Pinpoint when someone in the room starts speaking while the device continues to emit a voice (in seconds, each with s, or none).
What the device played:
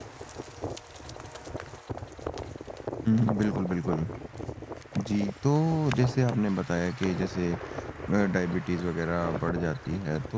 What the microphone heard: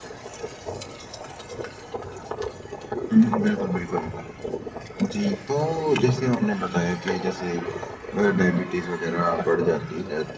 none